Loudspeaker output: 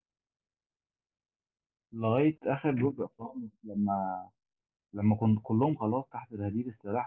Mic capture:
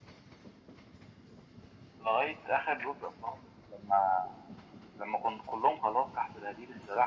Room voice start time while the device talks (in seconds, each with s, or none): none